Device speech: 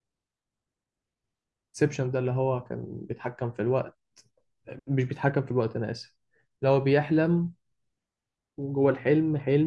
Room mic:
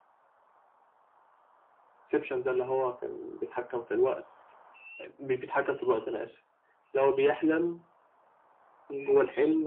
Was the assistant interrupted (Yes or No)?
No